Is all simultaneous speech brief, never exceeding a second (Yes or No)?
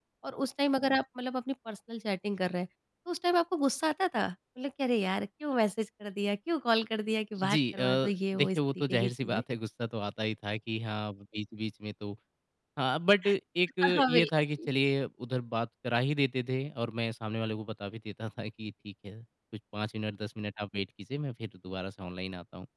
No